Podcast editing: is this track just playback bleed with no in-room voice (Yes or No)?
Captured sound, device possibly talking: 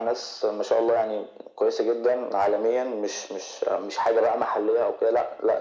Yes